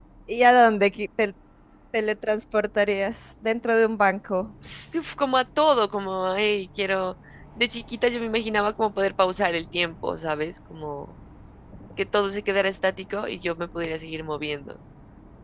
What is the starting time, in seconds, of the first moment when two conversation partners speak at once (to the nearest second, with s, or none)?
none